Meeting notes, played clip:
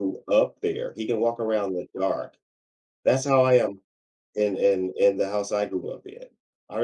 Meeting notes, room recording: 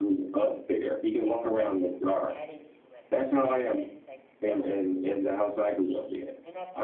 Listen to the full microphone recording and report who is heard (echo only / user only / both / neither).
both